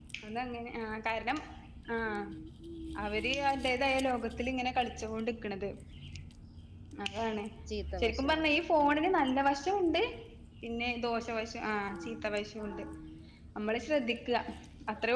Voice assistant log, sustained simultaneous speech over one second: present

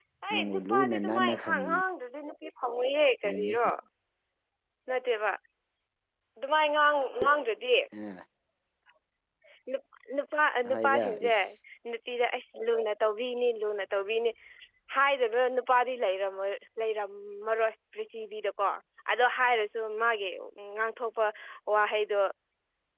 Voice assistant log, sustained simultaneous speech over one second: present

